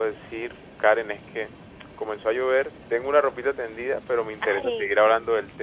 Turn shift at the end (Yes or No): No